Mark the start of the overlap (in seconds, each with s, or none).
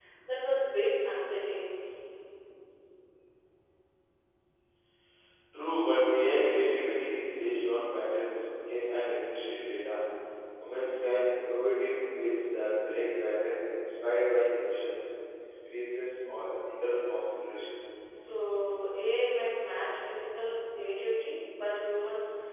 none